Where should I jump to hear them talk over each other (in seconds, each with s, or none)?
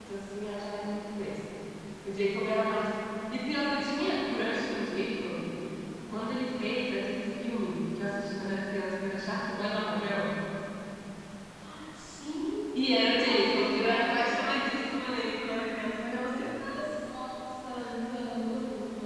13.1 s